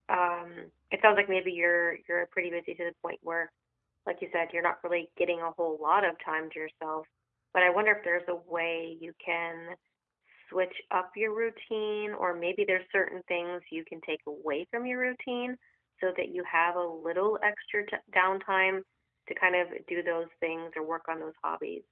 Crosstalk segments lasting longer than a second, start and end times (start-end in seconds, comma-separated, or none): none